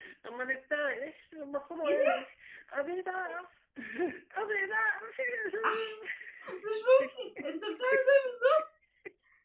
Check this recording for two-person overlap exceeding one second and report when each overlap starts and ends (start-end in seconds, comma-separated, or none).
none